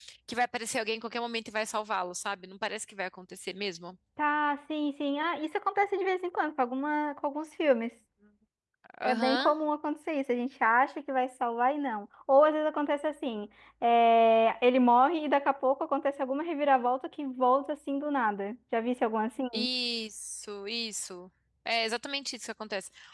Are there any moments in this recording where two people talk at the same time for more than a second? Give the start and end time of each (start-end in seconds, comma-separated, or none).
none